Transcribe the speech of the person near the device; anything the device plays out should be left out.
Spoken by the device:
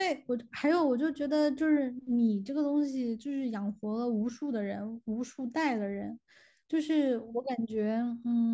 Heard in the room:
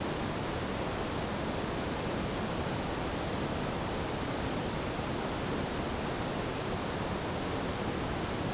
none

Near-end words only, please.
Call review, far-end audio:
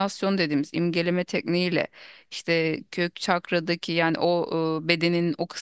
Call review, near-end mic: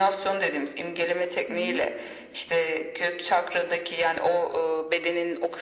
Hı hı.

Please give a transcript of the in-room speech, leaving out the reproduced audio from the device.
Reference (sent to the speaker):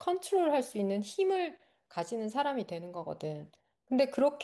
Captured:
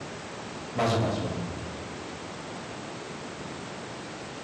맞아, 맞아.

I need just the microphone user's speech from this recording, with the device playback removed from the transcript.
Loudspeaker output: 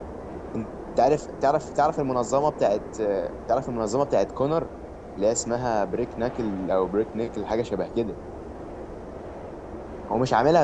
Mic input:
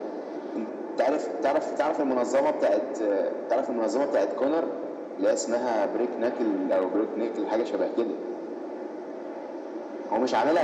none

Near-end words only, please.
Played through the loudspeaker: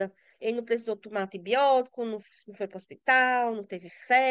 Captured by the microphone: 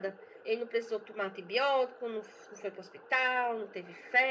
none

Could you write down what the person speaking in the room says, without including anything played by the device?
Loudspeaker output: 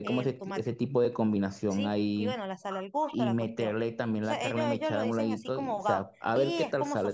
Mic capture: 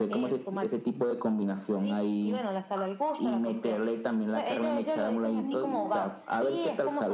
Mm,

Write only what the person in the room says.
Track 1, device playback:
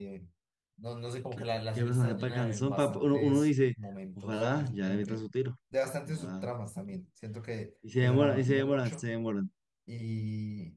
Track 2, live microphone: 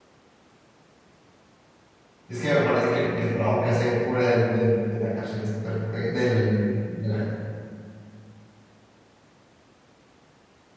Es que me parece que, que el trabajo que hace fuera del, del- de la cárcel es perfecto. Del, de la,

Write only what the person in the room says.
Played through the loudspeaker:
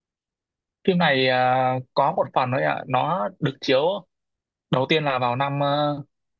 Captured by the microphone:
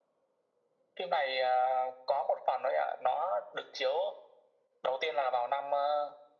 none

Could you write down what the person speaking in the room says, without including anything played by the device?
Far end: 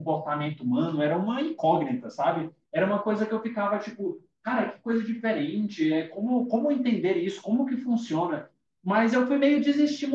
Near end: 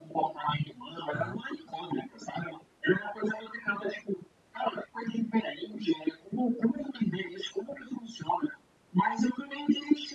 Aham.

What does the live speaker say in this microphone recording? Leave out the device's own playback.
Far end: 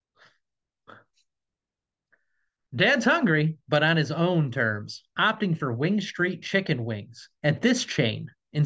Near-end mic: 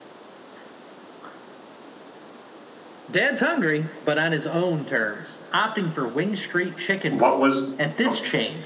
What was, oh,

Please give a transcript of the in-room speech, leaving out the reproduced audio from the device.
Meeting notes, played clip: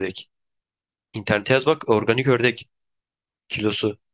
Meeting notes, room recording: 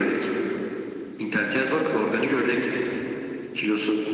none

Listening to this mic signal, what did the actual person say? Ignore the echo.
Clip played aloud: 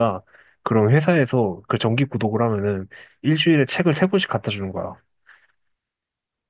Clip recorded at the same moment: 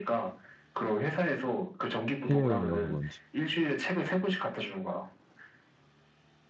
해외여행이라서 그런지.

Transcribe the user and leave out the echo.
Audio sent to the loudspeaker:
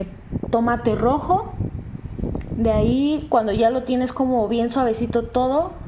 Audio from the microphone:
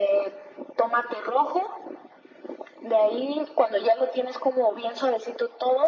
none

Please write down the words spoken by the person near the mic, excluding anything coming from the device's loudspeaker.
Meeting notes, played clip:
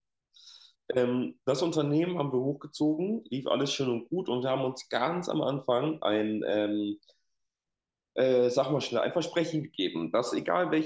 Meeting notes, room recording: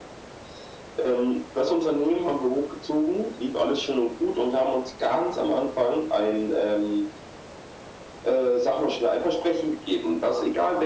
none

